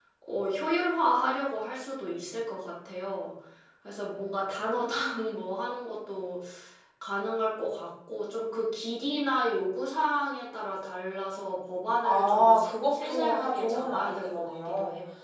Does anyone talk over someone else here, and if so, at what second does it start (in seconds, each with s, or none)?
12.0 s